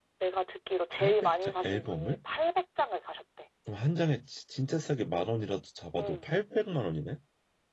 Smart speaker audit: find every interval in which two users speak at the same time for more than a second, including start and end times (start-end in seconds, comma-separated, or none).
0.9-2.2